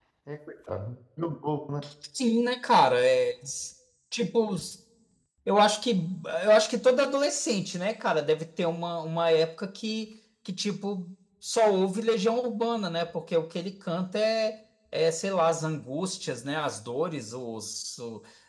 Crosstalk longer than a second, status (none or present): none